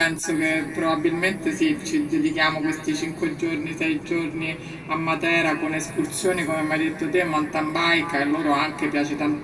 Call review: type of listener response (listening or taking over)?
listening